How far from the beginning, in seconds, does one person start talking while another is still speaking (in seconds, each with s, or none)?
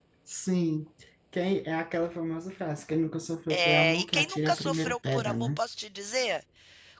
3.5 s